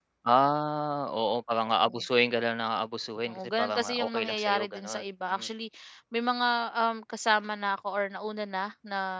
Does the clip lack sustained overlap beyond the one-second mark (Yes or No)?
No